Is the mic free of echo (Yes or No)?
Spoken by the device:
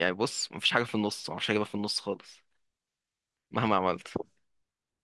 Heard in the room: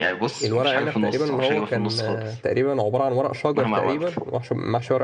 No